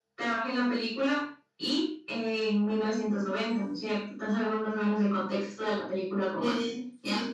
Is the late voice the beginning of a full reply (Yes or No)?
Yes